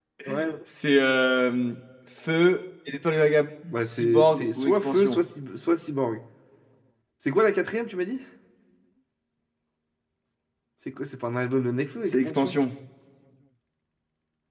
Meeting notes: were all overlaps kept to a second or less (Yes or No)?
No